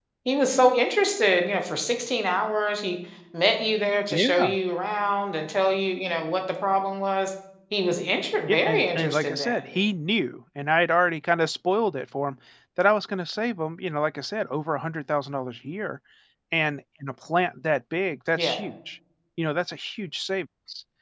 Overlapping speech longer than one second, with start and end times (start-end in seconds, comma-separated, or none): 8.5-9.8